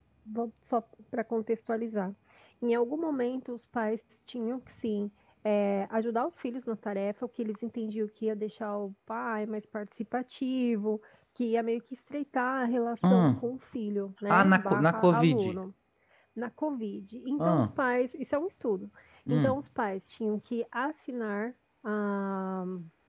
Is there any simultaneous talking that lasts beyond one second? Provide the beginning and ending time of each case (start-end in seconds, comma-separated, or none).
14.3-15.6